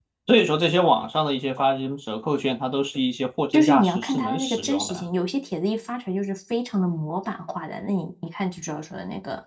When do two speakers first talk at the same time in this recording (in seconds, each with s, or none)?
3.5 s